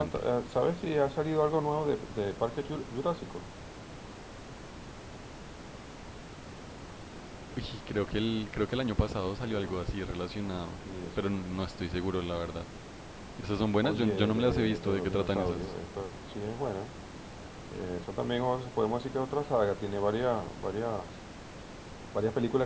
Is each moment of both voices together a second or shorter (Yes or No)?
No